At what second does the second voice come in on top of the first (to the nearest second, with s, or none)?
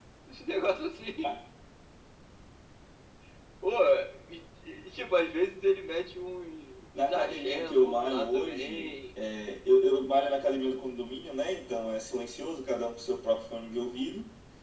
7 s